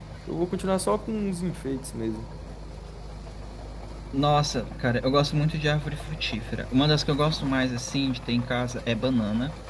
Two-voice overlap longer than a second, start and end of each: none

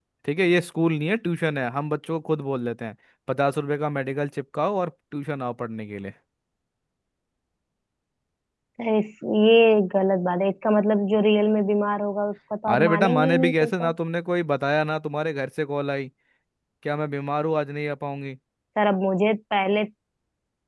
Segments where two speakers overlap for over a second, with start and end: 12.7-13.9

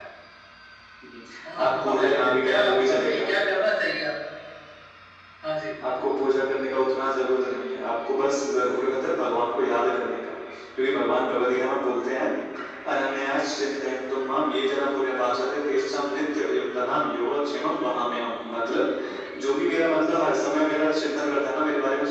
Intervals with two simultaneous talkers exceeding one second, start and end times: 1.6-3.3

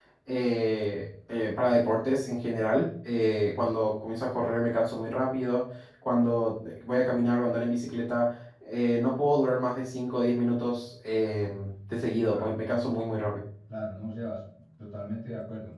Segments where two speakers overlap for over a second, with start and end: none

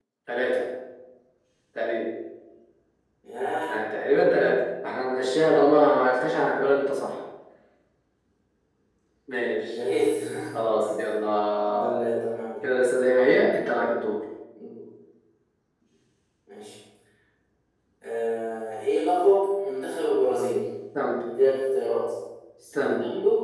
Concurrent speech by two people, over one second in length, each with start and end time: none

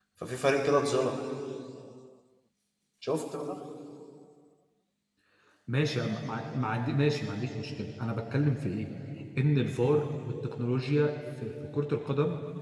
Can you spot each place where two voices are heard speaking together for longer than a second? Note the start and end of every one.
none

